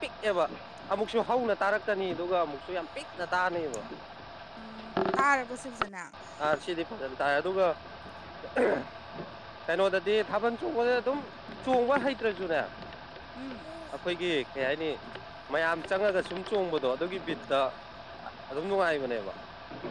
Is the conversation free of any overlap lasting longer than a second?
Yes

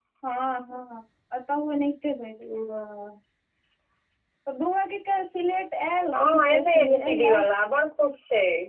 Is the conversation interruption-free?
No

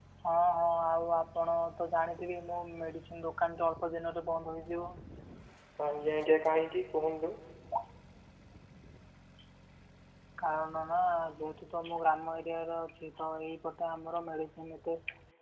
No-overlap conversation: Yes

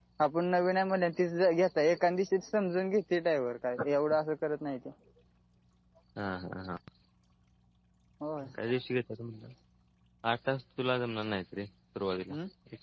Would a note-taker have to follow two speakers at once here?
No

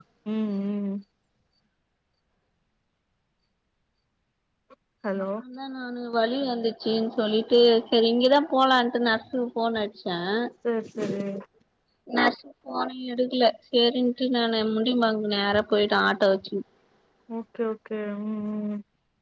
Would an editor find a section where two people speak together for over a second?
No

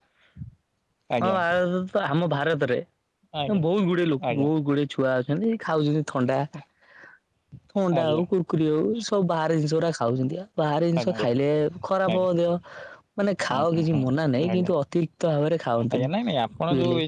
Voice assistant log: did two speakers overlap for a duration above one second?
No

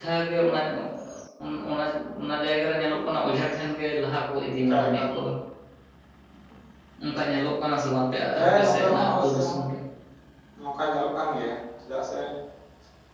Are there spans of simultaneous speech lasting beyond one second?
Yes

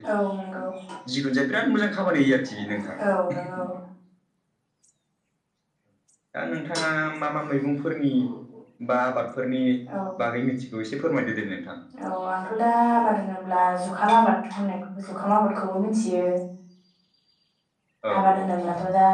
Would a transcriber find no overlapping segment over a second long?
Yes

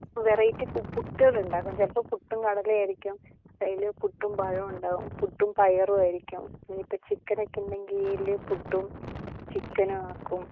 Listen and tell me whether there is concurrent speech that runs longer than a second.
No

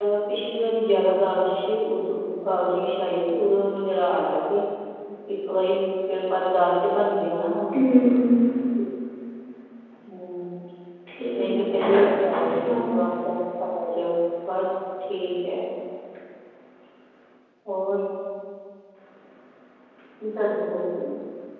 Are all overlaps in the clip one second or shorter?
No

